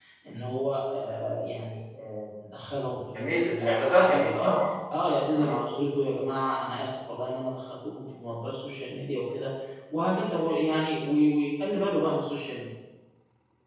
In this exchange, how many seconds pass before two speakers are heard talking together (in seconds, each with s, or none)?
3.1 s